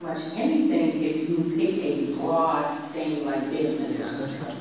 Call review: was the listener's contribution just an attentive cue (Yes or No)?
No